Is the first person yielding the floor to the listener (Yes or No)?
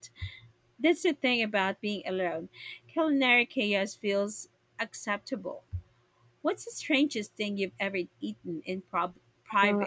Yes